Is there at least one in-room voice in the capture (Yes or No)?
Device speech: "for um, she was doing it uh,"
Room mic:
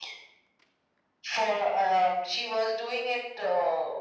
No